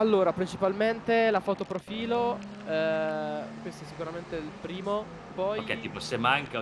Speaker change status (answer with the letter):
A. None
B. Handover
B